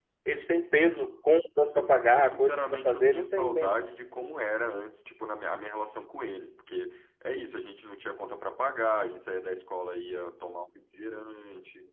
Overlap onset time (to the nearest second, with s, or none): 2 s